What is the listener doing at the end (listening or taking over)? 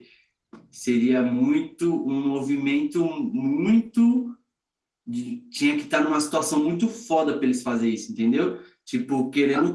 listening